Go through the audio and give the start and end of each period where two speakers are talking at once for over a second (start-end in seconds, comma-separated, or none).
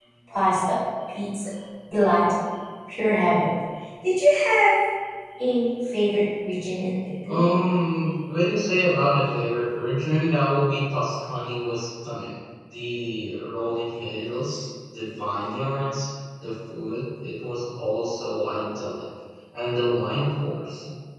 none